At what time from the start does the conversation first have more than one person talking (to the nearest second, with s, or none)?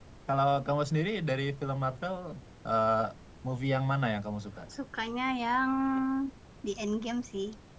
none